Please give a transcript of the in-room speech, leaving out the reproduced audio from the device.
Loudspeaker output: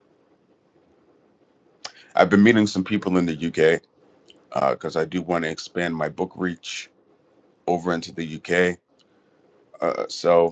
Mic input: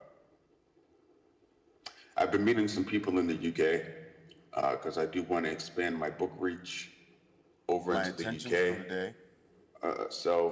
My intentions for the day

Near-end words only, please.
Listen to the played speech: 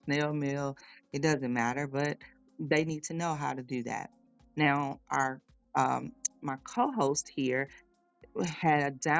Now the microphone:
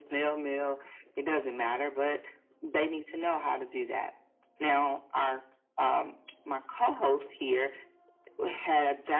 none

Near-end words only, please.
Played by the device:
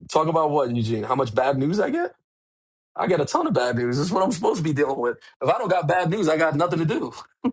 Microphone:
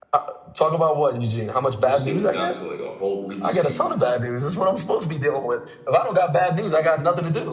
This shit was down to like a whole Rubik's Cube.

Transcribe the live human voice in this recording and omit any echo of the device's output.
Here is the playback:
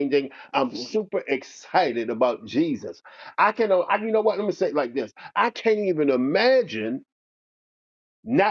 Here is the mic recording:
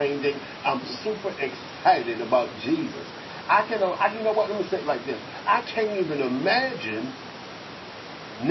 none

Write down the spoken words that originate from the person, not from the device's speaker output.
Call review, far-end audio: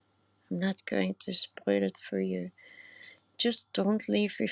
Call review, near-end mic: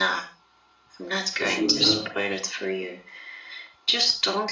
It's your job

